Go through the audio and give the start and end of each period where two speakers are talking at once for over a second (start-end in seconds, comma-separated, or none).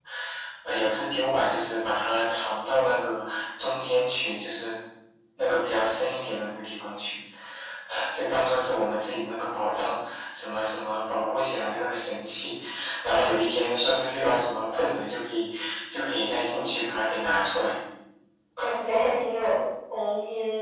none